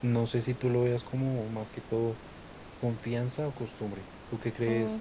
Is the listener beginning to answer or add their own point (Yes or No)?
Yes